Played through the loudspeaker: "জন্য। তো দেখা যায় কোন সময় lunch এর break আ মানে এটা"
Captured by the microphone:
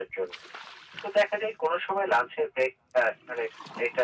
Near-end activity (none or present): none